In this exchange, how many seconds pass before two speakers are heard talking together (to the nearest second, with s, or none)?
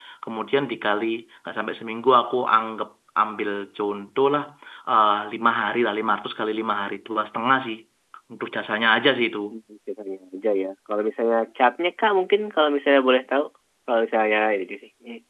none